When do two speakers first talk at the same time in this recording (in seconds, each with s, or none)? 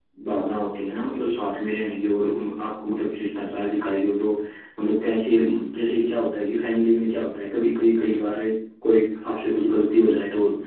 none